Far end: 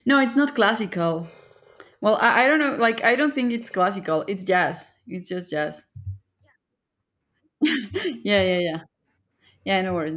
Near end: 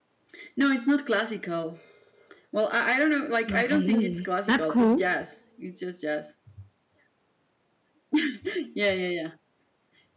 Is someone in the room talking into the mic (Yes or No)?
Yes